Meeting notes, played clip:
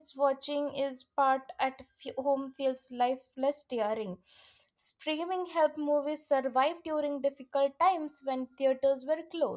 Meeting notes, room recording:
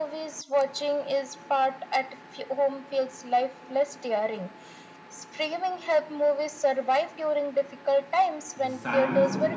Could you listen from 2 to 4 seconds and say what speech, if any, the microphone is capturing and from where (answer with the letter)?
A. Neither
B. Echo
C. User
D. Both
B